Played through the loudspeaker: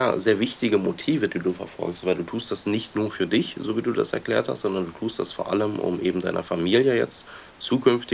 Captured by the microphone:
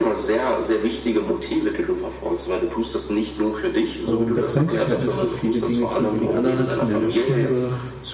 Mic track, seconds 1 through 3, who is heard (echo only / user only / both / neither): echo only